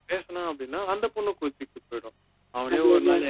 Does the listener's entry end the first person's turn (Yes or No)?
No